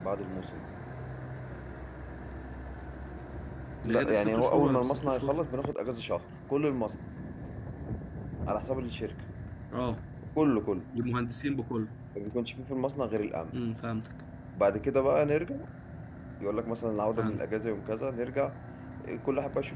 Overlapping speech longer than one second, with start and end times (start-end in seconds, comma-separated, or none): 3.9-5.3